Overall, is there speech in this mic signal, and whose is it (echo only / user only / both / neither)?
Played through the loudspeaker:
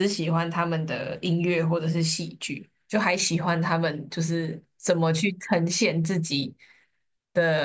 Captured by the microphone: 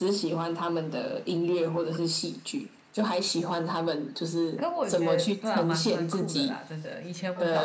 both